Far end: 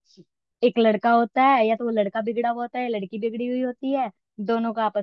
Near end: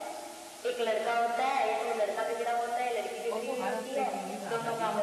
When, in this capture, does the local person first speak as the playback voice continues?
3.3 s

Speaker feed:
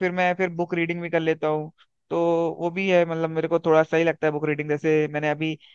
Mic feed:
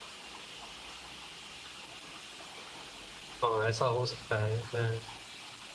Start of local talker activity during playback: 3.4 s

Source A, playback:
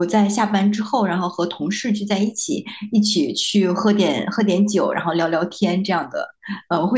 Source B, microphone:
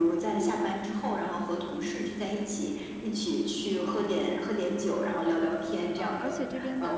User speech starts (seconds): 6.0 s

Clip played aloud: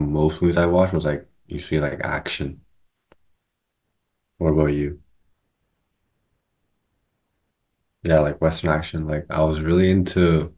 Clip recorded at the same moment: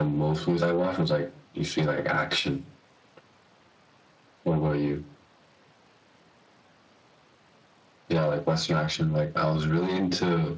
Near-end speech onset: none

